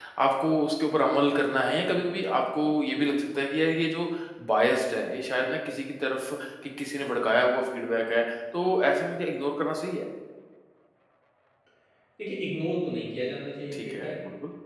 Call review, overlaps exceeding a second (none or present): none